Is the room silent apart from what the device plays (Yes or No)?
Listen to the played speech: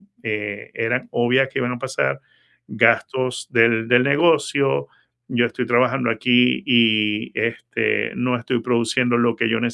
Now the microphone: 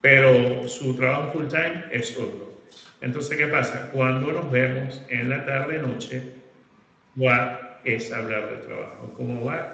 No